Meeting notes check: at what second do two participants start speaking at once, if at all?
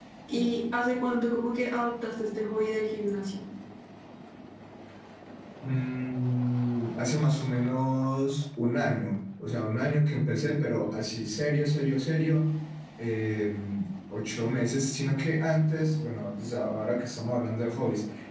none

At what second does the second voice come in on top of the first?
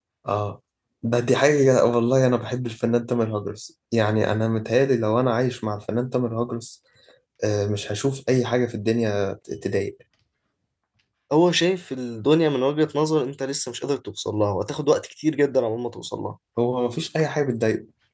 none

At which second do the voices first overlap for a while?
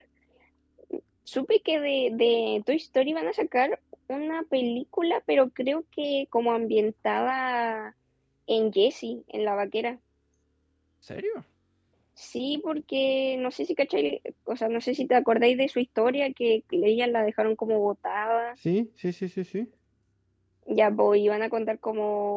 none

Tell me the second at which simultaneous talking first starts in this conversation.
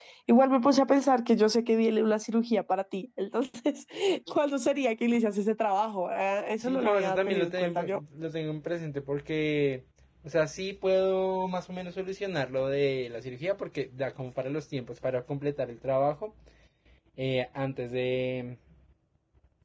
7 s

